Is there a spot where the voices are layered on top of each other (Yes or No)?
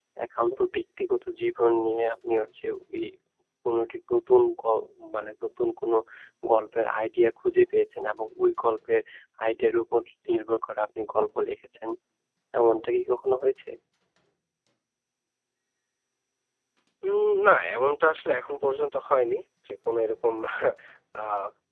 No